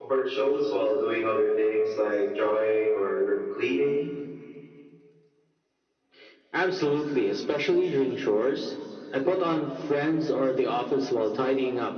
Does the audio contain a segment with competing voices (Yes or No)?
No